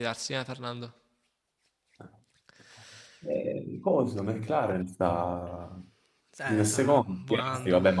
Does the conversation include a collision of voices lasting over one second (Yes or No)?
Yes